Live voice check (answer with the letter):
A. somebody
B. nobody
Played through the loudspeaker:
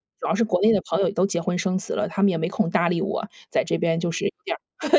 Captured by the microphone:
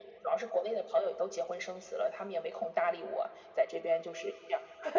B